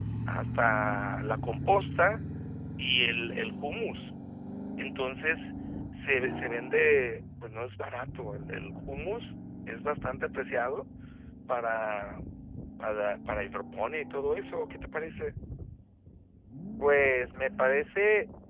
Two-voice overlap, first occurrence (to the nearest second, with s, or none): none